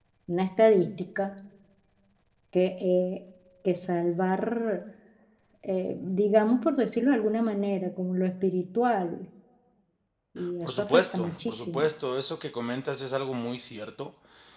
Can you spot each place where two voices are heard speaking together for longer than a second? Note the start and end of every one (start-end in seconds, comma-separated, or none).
10.7-11.9